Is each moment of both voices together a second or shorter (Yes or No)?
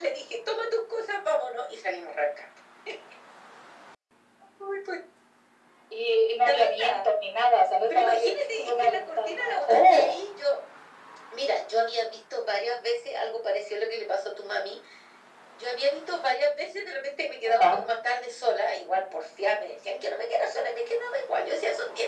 No